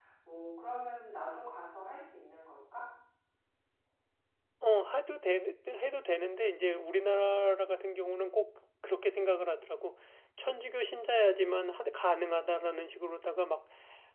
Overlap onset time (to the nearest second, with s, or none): none